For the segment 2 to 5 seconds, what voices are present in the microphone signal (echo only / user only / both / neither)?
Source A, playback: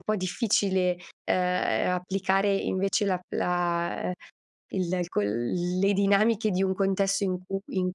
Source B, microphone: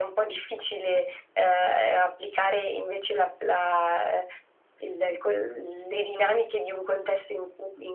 echo only